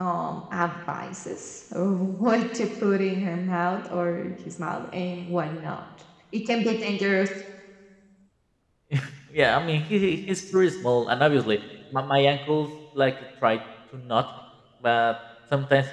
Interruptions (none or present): none